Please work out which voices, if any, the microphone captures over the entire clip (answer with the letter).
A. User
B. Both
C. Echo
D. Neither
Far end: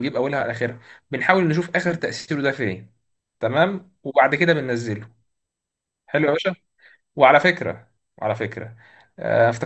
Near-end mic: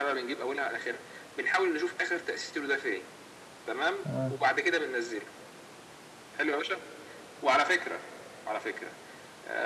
B